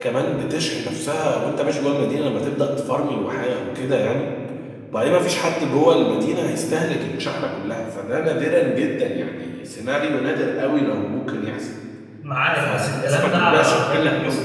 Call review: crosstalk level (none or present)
present